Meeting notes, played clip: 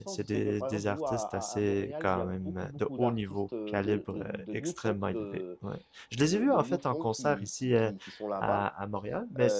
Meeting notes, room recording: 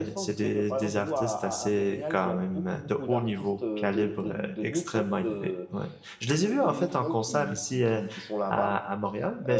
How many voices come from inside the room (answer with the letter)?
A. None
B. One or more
A